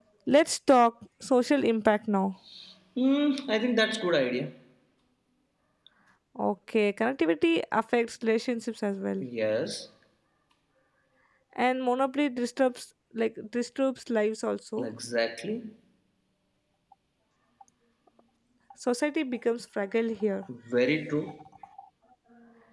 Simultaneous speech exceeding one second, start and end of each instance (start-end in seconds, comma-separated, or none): none